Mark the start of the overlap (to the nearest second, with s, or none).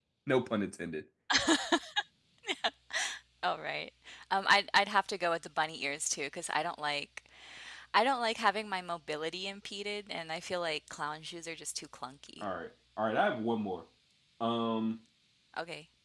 none